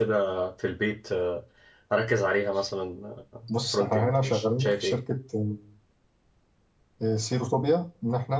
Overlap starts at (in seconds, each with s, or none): 3.7 s